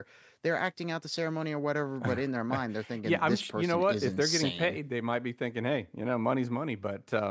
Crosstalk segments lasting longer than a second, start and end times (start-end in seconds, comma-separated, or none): 3.0-4.8